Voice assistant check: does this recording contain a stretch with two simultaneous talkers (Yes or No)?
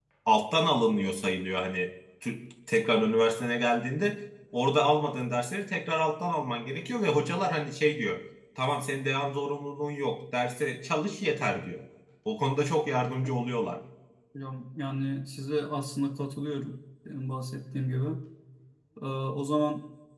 No